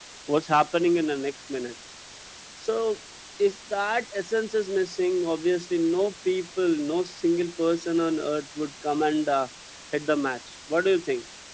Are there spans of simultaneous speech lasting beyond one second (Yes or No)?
No